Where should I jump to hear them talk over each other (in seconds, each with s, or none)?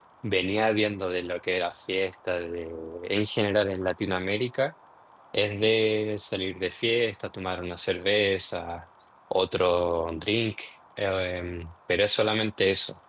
none